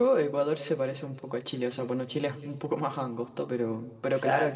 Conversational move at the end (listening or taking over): listening